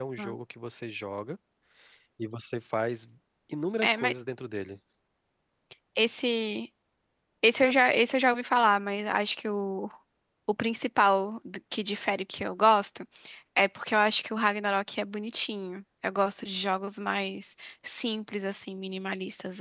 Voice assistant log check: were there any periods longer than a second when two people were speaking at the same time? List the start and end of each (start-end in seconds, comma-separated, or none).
none